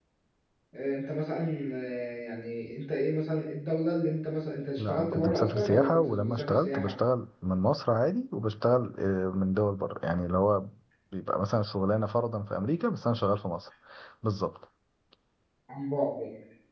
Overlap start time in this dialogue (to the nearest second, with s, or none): 5 s